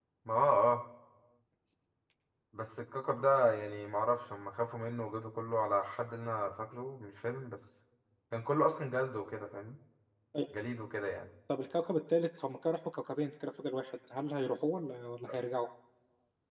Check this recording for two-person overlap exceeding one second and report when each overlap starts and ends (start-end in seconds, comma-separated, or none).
none